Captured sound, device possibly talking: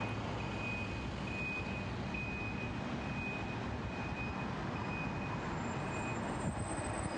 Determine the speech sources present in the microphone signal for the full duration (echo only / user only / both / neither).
neither